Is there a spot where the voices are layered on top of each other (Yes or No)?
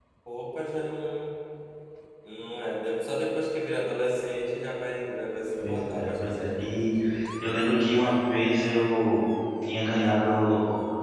Yes